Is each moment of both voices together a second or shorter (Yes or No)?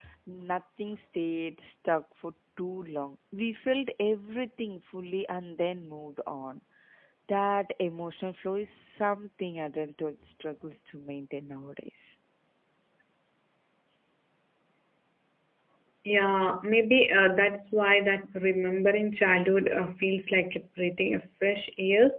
Yes